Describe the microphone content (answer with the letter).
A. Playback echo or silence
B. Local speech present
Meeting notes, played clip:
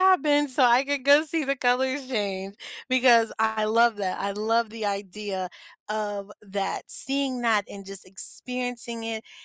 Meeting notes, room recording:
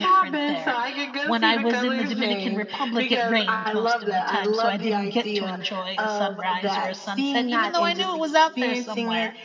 B